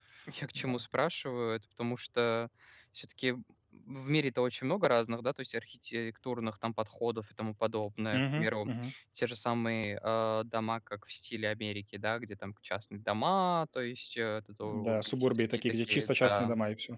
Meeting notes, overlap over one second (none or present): present